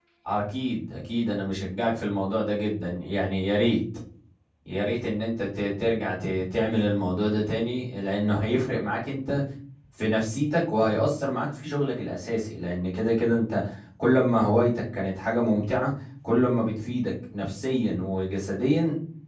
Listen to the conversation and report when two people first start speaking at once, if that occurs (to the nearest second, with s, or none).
none